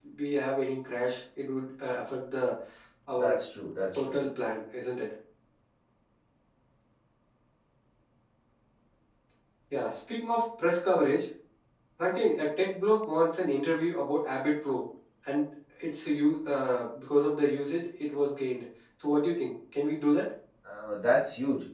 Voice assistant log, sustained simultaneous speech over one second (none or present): none